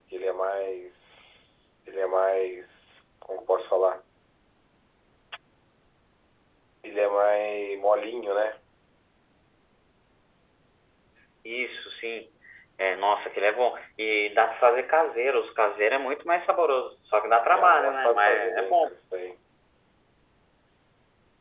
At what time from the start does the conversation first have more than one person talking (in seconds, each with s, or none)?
17.5 s